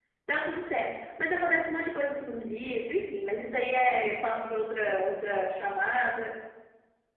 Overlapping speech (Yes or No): No